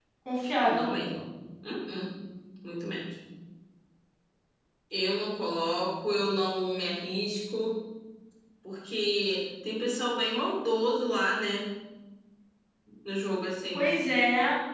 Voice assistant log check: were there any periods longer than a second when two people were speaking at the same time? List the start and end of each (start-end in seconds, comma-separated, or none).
none